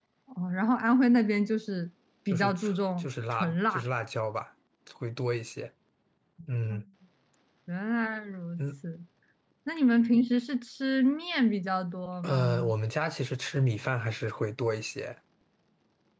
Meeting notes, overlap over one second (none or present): present